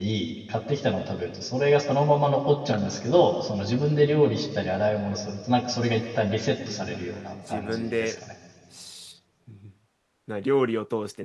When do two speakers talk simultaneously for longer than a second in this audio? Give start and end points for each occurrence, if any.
6.7-8.1

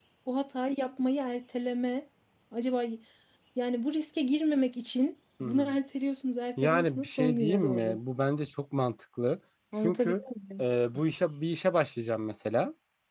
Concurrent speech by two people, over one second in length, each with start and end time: 6.6-8.0

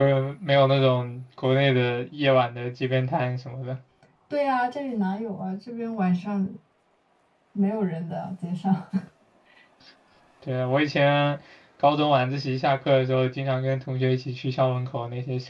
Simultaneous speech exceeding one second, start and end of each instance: none

